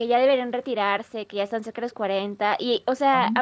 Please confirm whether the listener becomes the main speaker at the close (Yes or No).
No